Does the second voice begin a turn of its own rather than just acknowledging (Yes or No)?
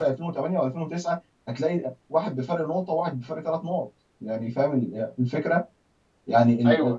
No